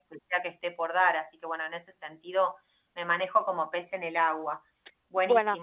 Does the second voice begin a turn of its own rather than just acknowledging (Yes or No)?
Yes